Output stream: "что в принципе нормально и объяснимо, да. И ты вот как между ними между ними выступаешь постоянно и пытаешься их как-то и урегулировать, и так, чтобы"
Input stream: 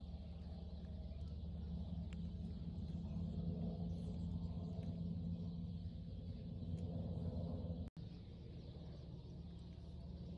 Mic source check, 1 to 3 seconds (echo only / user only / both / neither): neither